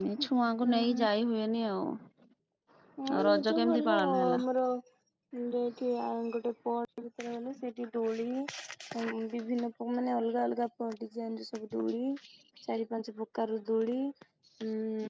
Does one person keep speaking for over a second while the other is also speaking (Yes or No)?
Yes